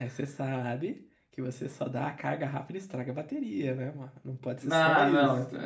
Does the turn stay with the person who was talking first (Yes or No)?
No